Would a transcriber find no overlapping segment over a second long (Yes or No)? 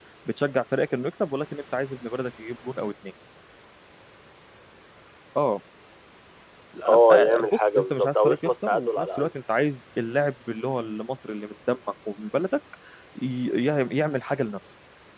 No